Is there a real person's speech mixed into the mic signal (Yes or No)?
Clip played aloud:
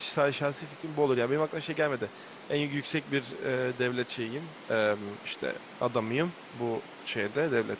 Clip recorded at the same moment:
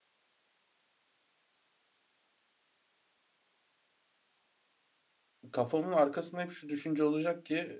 Yes